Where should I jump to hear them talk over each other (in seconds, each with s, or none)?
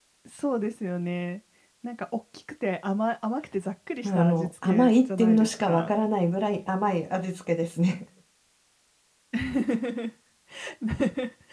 4.0 s